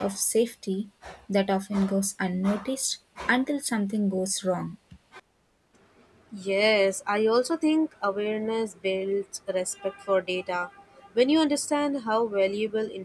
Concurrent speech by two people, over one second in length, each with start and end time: none

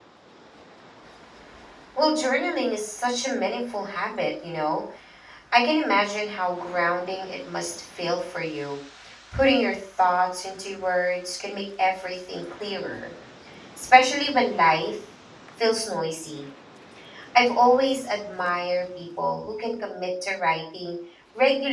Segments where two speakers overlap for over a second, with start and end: none

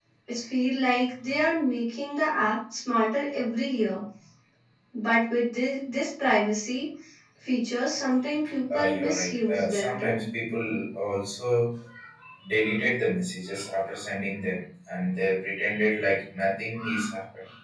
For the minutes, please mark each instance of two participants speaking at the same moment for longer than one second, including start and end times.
8.7-10.2

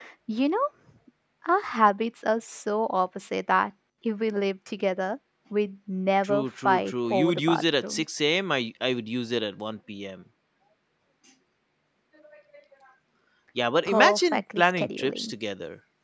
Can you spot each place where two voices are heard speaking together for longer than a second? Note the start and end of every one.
6.2-8.0, 13.8-15.3

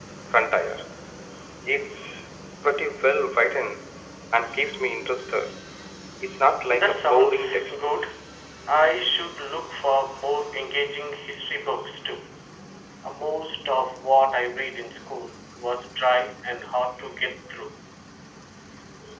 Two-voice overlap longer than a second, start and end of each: 6.7-7.9

